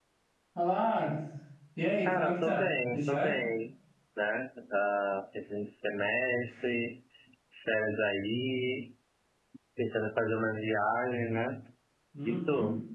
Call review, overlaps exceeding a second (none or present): present